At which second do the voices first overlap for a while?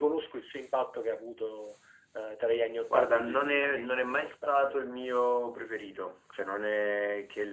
3 s

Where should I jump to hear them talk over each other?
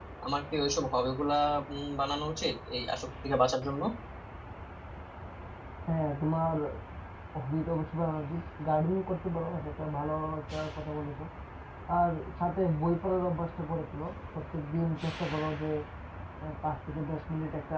none

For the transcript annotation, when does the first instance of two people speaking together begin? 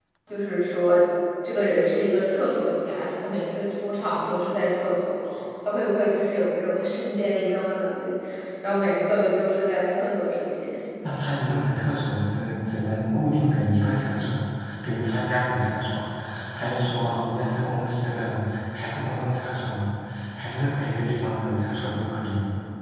none

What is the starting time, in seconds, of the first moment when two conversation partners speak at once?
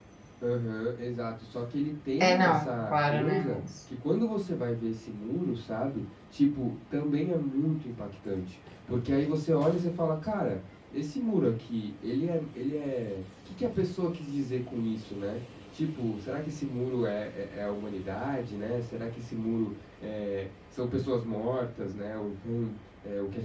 2 s

